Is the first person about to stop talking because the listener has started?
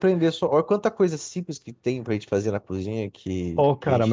Yes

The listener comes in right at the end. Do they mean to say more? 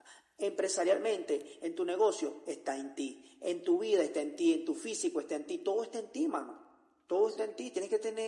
No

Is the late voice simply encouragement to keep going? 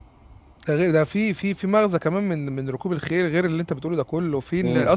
Yes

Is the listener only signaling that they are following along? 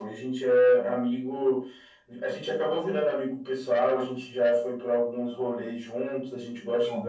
Yes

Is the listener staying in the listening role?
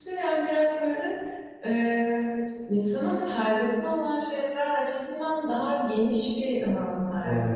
No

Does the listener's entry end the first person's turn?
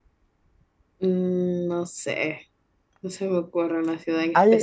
Yes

